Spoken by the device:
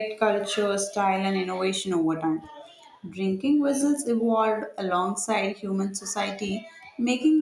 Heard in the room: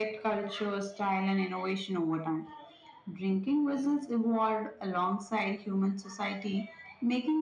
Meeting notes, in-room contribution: none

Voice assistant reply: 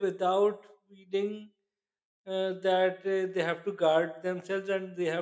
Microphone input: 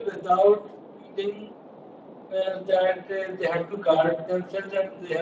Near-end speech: none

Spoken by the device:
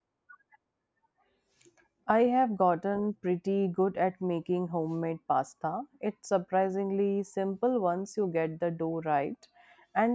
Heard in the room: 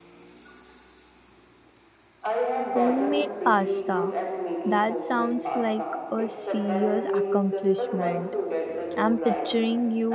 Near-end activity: present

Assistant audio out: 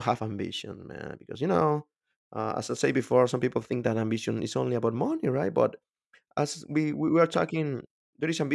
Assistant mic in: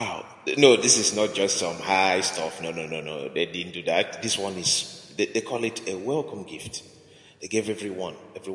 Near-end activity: present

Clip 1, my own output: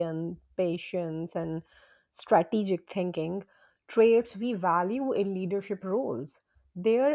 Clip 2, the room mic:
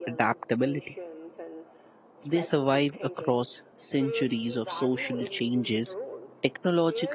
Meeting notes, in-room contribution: present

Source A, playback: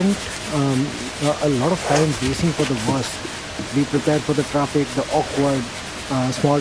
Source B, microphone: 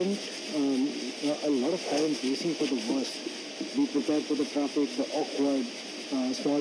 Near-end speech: none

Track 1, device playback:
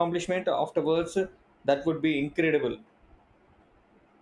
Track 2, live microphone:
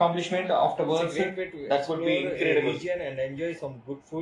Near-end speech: present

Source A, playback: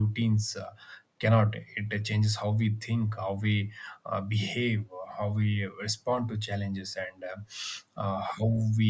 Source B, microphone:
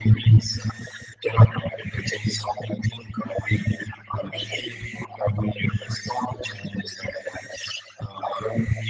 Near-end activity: none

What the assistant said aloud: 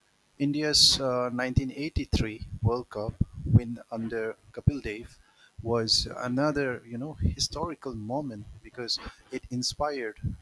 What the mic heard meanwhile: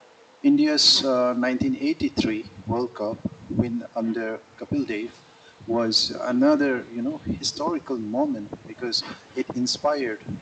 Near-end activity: none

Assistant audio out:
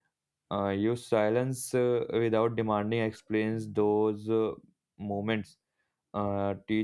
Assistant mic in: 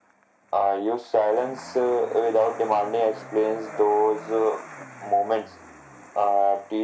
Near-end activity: none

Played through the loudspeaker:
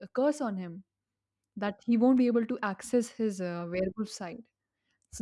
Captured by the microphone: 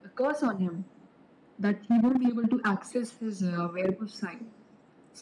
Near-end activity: none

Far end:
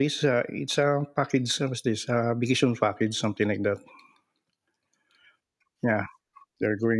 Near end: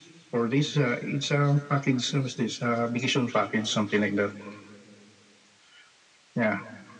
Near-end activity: none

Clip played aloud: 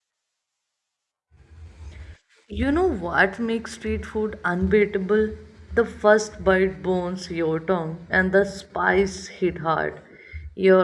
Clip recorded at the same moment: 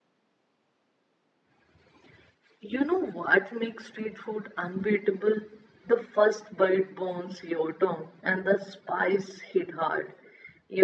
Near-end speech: none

